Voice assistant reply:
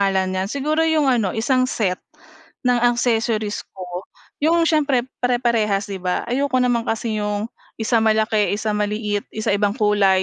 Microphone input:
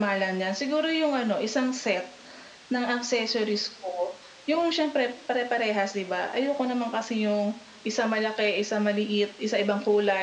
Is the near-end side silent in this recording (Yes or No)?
Yes